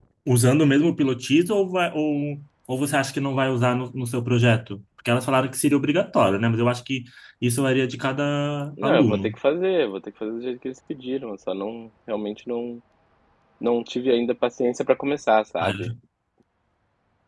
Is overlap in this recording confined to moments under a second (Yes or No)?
Yes